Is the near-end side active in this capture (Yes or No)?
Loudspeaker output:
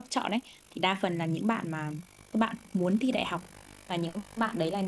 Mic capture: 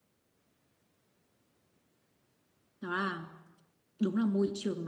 Yes